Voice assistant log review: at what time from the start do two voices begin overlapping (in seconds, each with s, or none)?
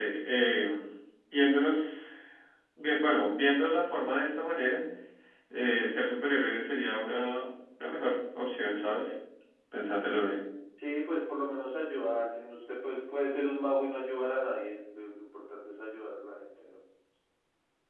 none